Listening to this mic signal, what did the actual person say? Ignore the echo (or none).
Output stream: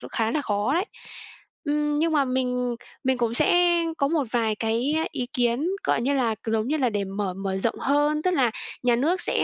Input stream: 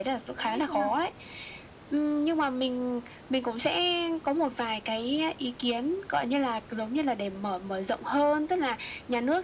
cũng ít thôi ha?